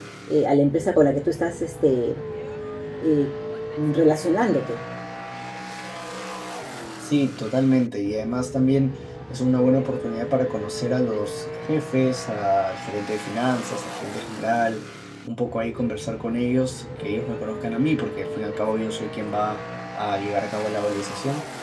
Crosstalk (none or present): none